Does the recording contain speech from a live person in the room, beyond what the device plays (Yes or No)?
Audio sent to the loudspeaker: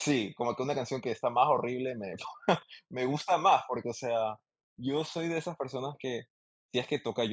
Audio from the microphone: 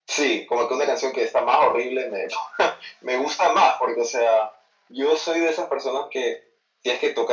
No